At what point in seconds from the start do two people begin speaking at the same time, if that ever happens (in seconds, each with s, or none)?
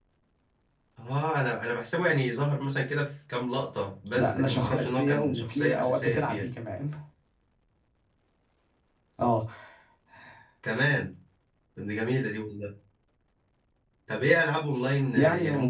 4.1 s